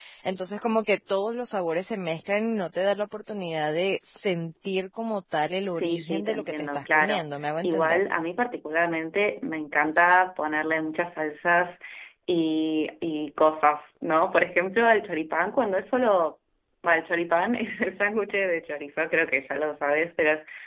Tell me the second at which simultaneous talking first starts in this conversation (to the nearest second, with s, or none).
6 s